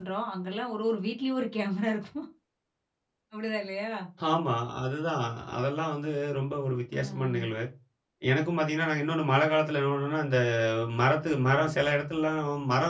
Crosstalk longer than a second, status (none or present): none